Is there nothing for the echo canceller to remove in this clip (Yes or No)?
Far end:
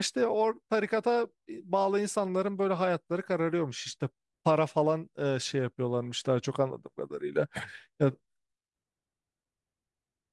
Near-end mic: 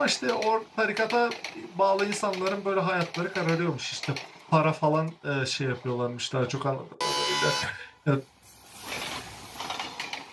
No